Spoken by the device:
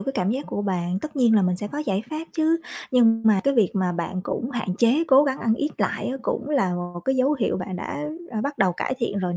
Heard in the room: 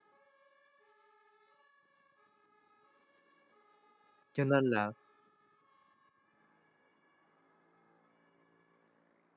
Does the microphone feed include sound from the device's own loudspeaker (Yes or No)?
No